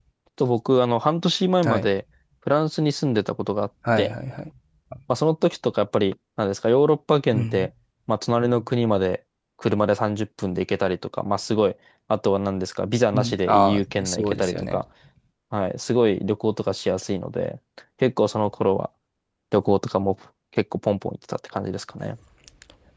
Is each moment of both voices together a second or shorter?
No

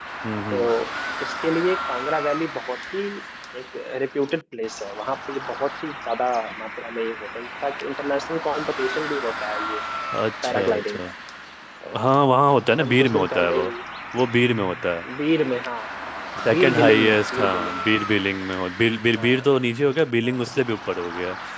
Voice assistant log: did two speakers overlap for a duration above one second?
Yes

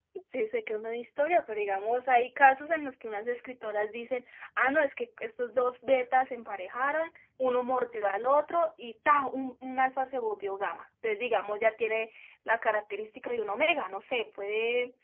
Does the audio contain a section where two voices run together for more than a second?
No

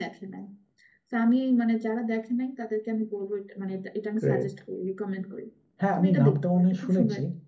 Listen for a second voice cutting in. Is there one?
Yes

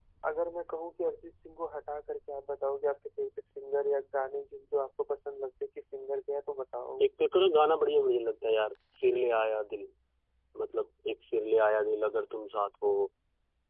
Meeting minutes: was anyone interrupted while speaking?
No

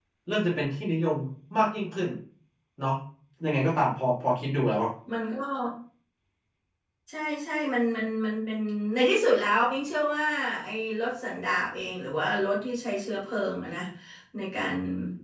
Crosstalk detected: No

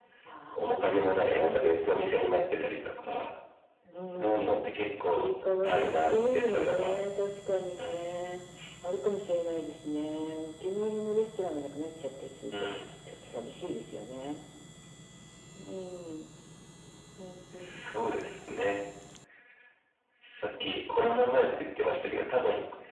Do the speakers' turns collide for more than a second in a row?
Yes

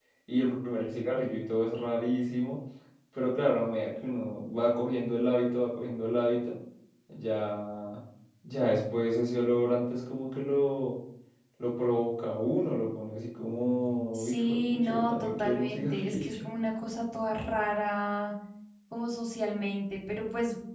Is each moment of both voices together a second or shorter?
No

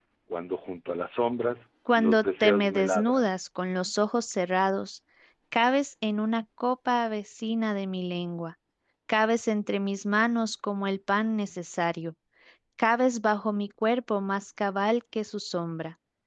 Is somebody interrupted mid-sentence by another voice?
Yes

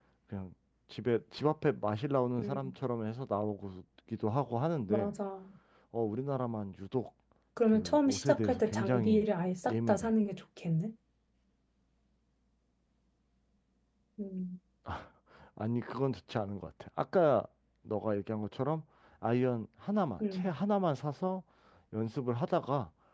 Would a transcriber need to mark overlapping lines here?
Yes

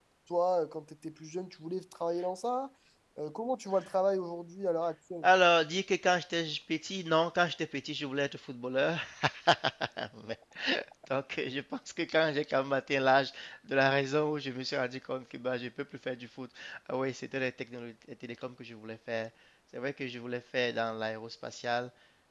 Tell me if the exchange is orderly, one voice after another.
Yes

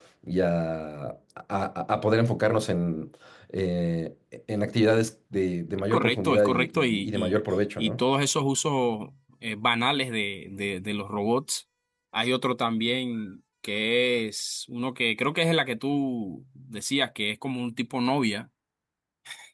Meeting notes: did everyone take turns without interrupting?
No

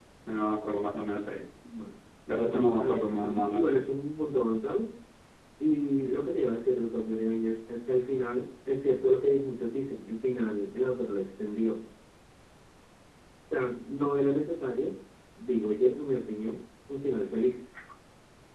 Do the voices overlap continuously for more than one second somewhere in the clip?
Yes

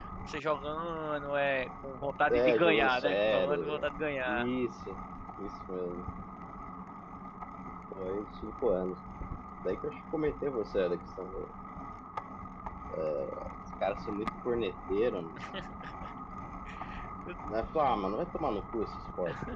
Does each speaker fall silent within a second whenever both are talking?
No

